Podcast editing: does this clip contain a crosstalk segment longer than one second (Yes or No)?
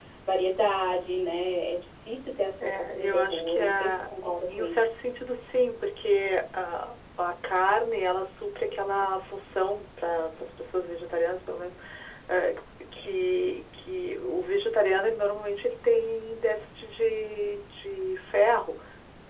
Yes